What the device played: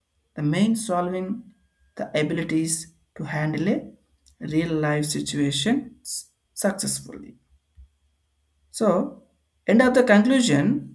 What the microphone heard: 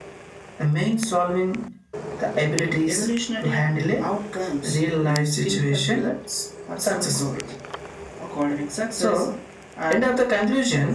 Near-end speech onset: 2.9 s

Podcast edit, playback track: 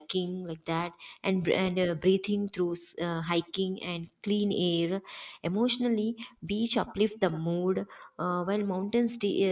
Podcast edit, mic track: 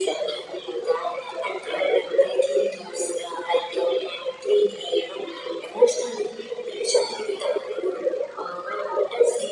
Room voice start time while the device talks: none

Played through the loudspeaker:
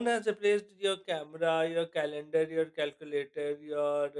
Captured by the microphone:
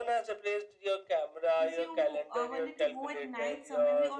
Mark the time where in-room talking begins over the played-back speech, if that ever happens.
1.6 s

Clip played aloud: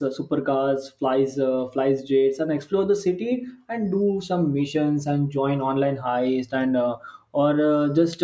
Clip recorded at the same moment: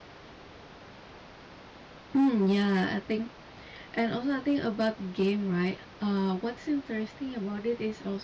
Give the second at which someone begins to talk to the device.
2.1 s

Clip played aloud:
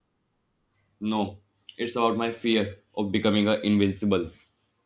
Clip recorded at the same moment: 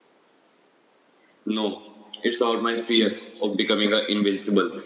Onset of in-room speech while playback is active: none

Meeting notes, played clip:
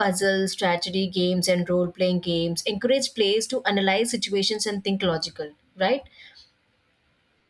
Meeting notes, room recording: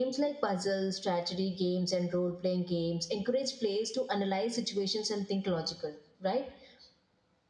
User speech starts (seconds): none

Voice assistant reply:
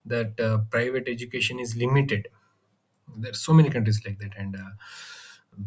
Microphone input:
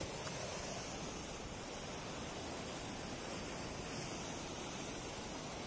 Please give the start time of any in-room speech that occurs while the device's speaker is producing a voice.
none

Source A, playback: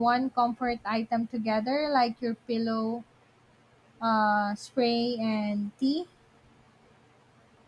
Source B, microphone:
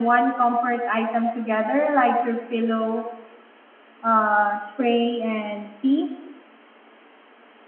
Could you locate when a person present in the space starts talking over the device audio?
none

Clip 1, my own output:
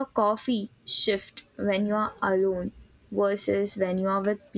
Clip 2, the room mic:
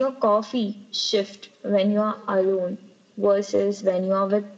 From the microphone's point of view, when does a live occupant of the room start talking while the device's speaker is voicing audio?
none

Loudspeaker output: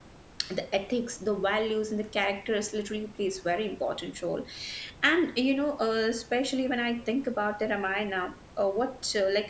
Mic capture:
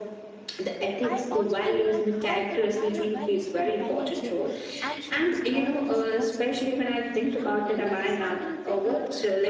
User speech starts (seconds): 1.0 s

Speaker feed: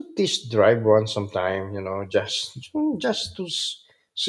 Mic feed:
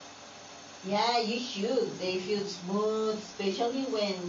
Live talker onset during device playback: 0.8 s

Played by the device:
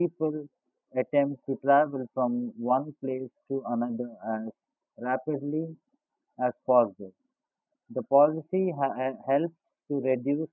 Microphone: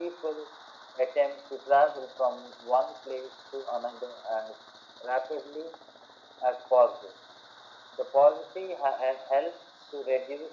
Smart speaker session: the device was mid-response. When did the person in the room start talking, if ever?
none

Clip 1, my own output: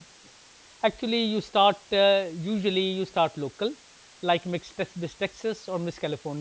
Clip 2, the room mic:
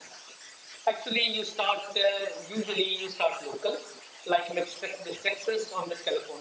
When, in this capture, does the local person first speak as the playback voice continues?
none

